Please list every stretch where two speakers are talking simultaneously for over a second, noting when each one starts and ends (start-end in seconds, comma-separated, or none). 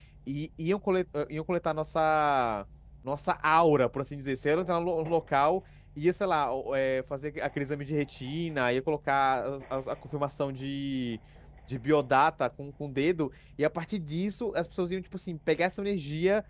none